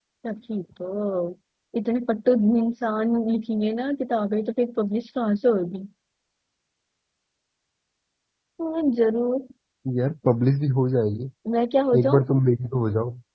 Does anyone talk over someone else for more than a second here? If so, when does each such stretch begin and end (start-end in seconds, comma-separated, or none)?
none